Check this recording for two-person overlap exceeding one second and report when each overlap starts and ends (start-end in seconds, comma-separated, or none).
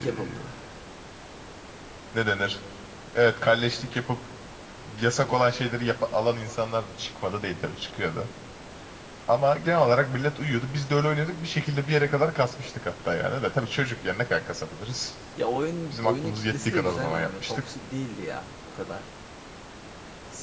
15.9-17.6